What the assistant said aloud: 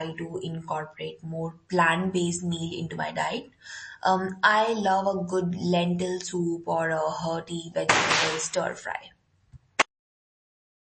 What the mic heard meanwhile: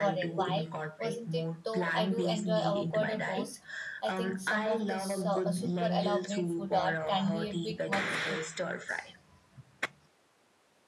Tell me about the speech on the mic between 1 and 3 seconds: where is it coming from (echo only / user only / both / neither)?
both